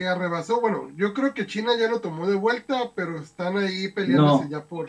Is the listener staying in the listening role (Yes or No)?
No